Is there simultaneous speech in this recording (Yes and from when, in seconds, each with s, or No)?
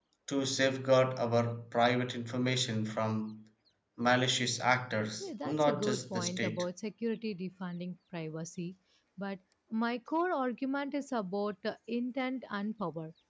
Yes, from 5.2 s